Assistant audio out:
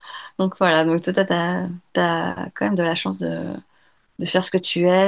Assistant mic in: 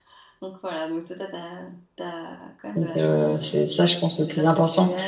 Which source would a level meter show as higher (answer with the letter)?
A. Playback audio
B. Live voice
B